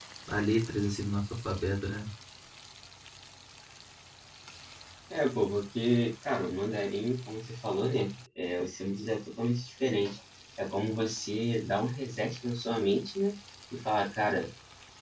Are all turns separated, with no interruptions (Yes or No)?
Yes